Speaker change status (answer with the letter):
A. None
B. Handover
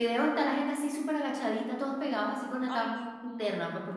A